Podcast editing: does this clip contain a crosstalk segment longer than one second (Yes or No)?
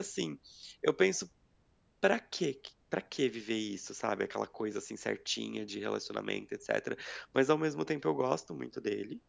No